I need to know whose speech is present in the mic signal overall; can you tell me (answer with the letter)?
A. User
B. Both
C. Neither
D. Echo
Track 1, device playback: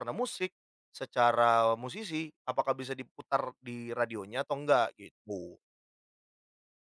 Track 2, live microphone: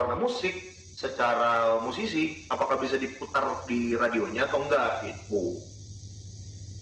D